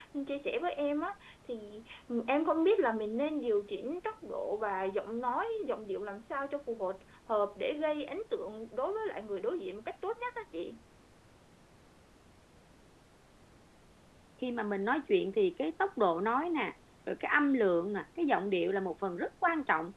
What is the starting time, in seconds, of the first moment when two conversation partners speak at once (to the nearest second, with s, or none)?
none